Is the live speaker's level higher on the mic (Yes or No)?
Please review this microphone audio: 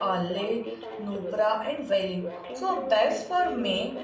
Yes